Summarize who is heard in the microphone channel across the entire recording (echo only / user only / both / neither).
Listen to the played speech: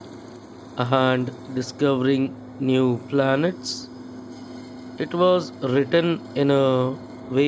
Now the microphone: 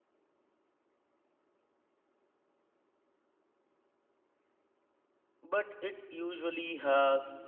user only